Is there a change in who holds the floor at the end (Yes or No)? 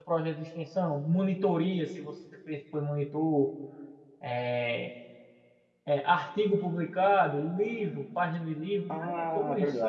Yes